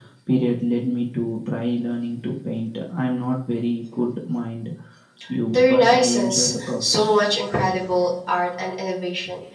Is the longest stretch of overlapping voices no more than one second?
No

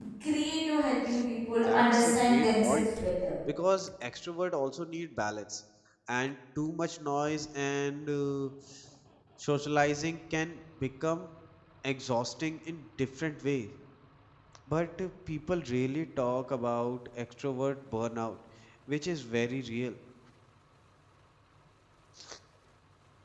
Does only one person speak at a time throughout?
No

